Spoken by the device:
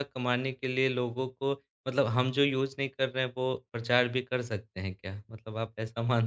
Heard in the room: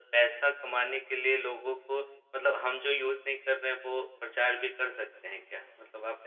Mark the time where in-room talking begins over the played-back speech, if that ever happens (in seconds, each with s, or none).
none